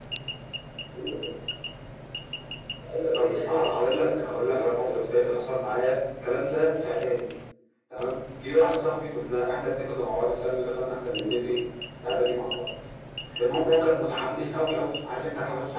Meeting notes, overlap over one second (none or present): present